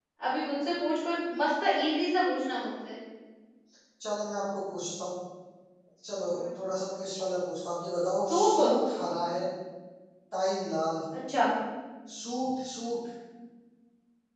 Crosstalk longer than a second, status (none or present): none